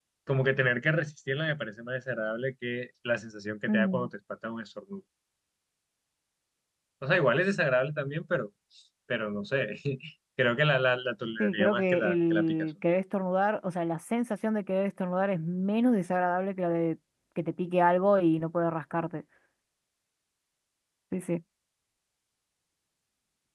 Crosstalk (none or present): present